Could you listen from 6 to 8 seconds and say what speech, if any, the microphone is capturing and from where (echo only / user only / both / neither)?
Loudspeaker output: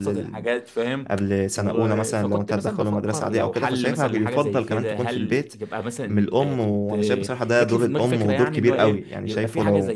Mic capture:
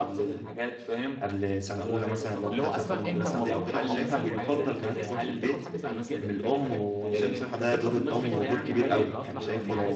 both